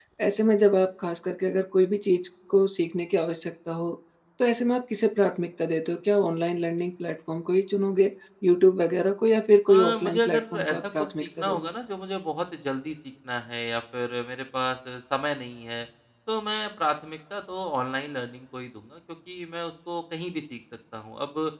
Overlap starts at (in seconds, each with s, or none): 9.7 s